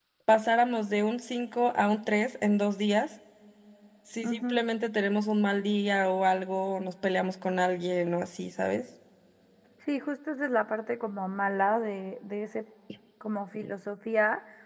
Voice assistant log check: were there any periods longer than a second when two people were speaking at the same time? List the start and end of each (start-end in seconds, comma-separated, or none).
none